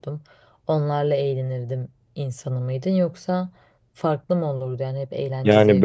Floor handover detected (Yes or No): Yes